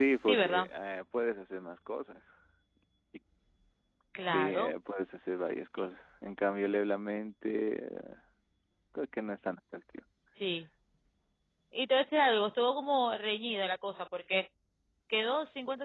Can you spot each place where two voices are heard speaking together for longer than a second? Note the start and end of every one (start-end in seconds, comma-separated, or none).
none